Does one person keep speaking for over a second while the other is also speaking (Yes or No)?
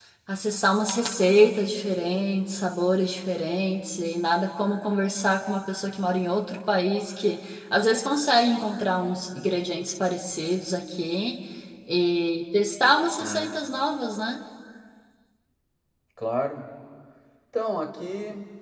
No